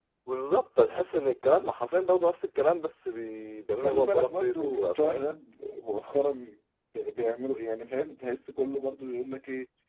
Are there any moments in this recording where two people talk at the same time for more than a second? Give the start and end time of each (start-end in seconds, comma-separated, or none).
3.8-5.3